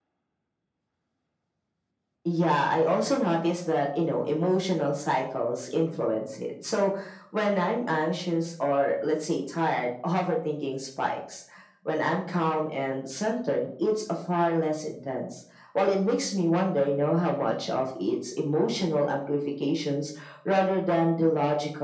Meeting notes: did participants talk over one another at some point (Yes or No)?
No